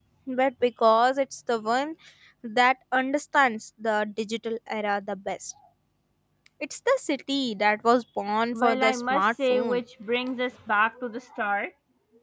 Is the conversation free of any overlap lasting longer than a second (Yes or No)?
No